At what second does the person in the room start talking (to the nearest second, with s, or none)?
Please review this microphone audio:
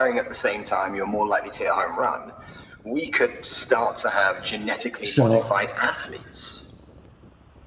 5 s